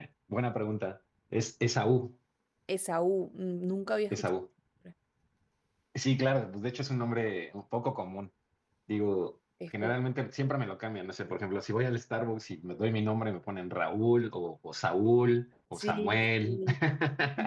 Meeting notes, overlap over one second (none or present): none